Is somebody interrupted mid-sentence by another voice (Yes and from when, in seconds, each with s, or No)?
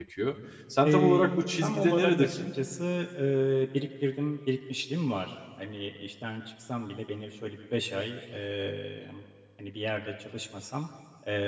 Yes, from 0.8 s